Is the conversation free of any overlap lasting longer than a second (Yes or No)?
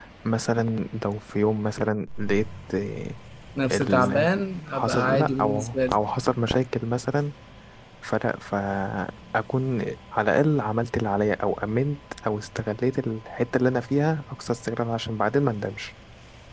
No